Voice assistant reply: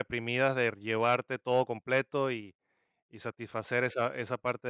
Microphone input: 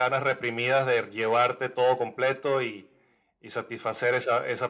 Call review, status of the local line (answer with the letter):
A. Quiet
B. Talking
A